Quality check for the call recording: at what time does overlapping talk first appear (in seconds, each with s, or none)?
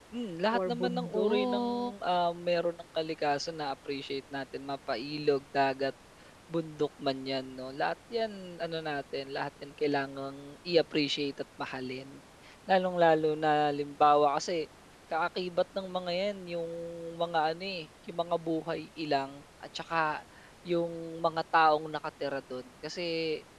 0.5 s